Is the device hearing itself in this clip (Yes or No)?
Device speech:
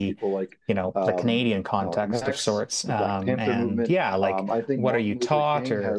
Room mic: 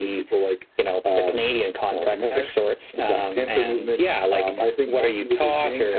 Yes